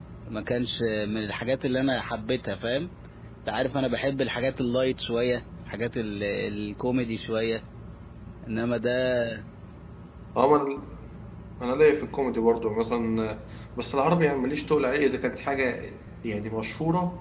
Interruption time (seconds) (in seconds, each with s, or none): none